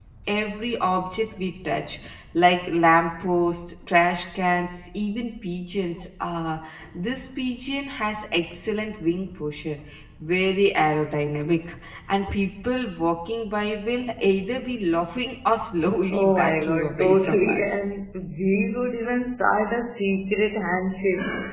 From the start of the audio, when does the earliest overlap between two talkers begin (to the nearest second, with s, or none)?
16 s